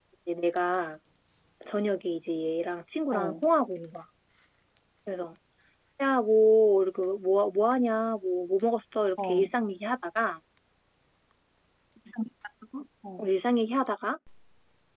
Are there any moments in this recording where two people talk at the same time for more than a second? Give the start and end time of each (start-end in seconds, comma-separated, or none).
none